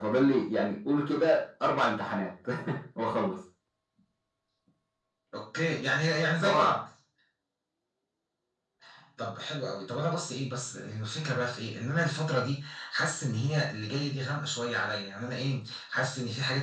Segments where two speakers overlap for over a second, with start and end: none

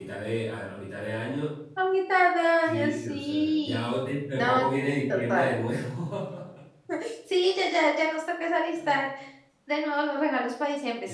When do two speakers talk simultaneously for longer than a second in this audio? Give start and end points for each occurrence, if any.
2.6-3.9

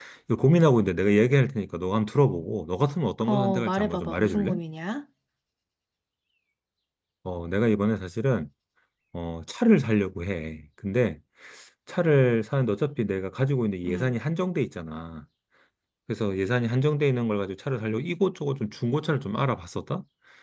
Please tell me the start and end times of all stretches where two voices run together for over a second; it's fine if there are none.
3.2-4.6

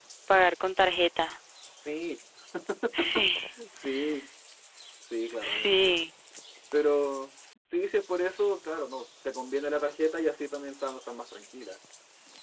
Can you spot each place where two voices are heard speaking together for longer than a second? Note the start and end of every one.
none

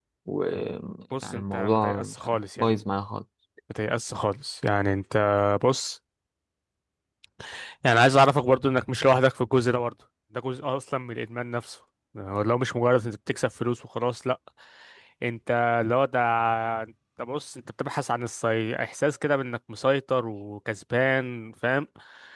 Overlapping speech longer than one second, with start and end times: 1.4-2.8

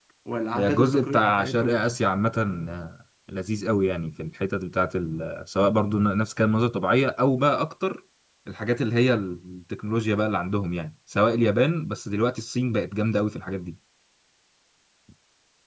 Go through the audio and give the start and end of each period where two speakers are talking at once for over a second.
0.6-1.8

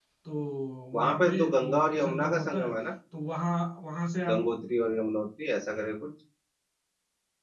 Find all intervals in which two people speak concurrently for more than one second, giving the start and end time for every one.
0.9-2.7

